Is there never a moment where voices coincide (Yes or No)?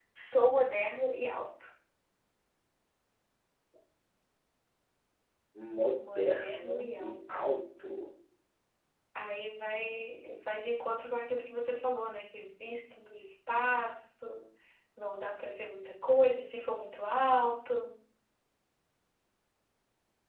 No